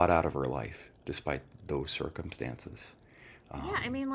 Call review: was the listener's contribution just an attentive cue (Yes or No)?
No